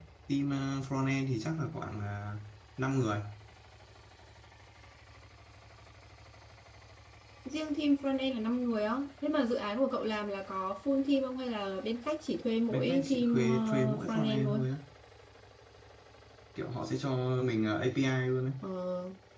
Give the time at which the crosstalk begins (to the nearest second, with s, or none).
13 s